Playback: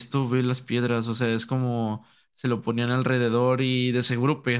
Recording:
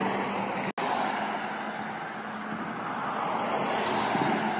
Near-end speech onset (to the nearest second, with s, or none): none